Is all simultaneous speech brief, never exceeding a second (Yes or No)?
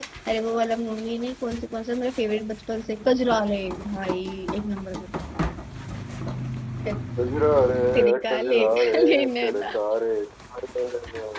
No